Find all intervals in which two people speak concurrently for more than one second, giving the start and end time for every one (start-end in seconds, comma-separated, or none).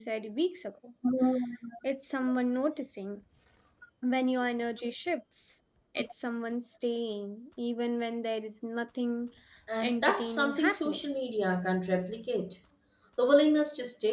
9.8-11.1